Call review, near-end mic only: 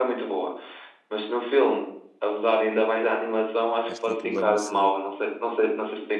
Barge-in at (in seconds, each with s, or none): 3.9 s